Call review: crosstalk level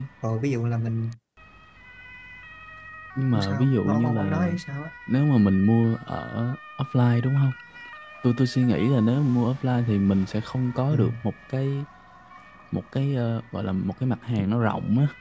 present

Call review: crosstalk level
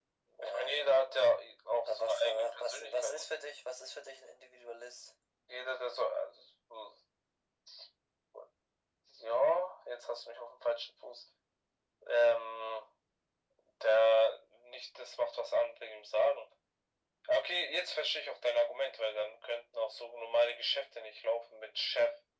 present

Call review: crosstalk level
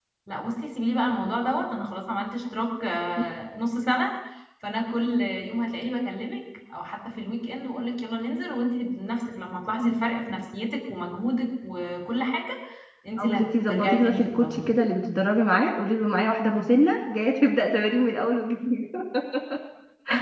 present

